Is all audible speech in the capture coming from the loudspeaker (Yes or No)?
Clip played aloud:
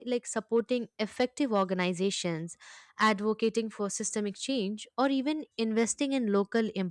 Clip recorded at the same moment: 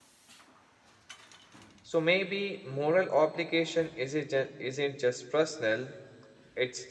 No